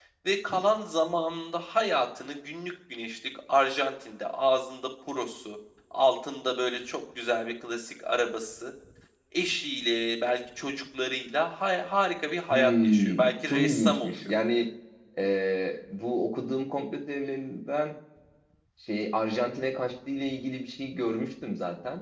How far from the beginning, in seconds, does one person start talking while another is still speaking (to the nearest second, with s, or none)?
13 s